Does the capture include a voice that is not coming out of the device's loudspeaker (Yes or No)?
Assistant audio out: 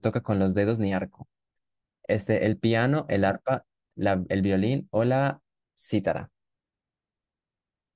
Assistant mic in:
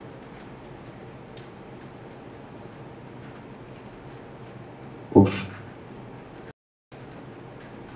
Yes